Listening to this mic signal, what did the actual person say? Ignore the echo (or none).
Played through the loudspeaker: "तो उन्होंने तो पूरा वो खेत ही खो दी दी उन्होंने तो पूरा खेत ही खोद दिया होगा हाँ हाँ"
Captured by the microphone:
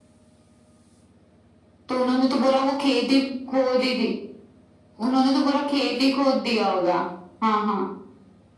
none